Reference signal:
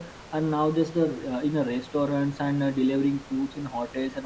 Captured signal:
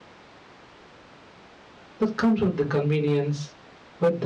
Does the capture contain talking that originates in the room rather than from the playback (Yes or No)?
Yes